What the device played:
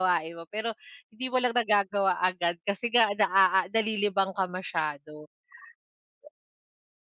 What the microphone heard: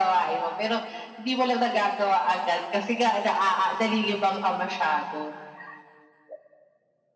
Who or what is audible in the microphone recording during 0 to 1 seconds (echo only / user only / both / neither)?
echo only